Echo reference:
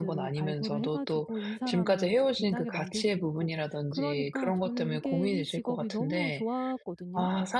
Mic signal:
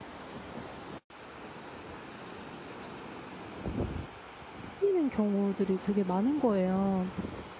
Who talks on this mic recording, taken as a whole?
user only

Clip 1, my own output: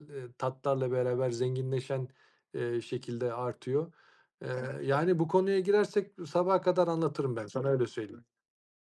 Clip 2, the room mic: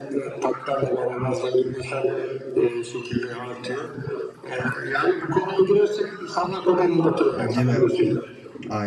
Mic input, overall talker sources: both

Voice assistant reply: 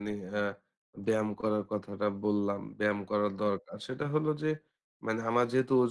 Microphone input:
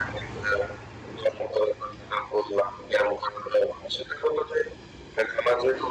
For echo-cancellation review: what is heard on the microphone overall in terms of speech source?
echo only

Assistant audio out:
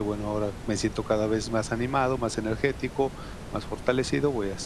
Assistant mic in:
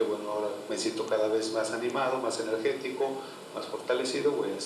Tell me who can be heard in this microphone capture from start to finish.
echo only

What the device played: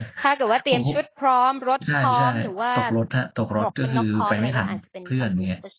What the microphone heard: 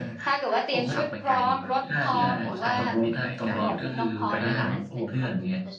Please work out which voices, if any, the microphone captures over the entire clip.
both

